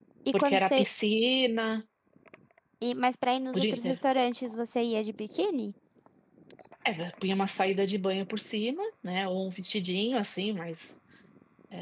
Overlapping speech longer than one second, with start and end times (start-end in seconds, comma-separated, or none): none